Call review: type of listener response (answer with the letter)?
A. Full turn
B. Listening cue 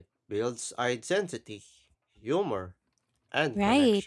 A